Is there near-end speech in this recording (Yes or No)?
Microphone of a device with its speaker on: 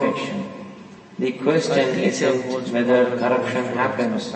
Yes